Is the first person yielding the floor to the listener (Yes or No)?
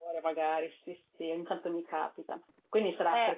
No